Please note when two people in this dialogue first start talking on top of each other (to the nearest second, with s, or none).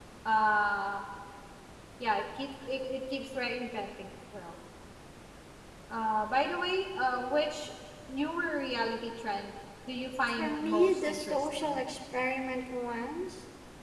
10 s